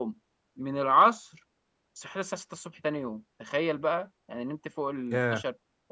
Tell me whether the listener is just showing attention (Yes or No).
Yes